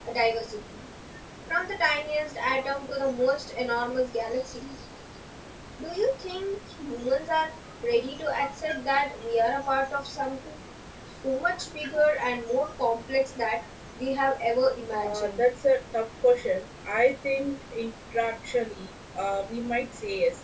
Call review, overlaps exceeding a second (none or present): none